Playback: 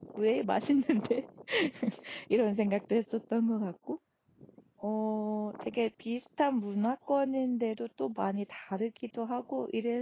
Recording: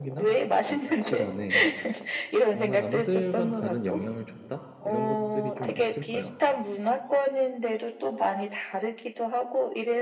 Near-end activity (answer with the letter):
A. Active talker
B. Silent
A